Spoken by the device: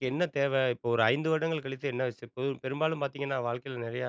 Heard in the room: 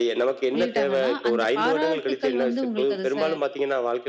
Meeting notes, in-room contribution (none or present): present